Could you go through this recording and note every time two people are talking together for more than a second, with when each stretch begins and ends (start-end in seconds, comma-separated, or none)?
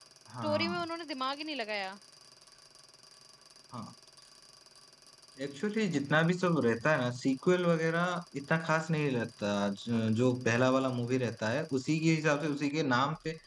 none